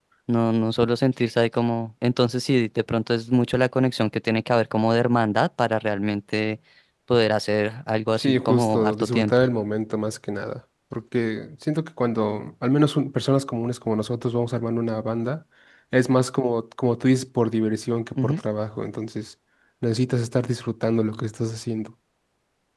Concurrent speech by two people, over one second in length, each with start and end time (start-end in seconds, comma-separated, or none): 8.2-9.4